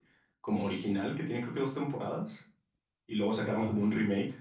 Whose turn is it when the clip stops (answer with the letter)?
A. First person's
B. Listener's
A